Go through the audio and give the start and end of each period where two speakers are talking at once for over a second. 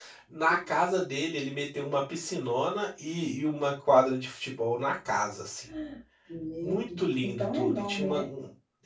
6.6-8.3

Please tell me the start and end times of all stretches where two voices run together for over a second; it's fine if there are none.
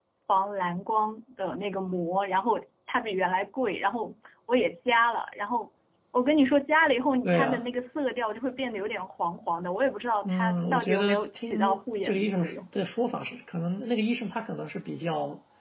10.2-12.5

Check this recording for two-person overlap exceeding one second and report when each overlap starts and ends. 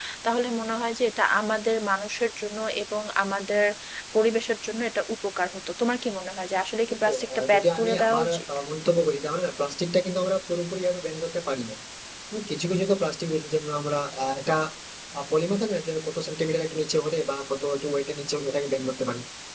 6.9-8.4

